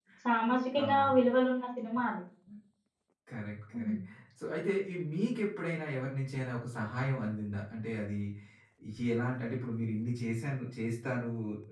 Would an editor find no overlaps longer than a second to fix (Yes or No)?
Yes